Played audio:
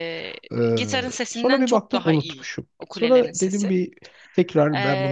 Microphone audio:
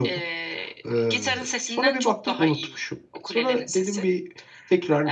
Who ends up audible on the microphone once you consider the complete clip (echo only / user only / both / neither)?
echo only